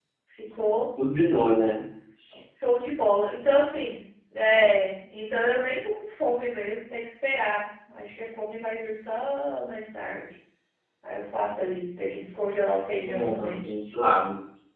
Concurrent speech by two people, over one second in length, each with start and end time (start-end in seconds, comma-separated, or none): none